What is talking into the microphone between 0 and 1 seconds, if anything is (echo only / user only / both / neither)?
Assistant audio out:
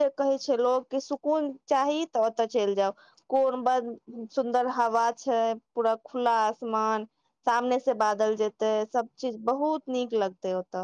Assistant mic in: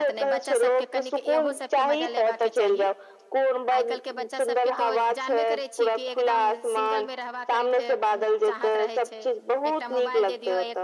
both